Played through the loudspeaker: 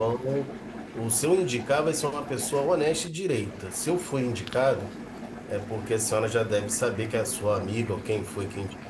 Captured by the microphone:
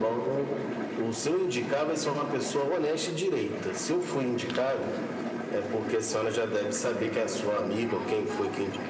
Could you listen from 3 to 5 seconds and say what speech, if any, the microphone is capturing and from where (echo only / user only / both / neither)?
echo only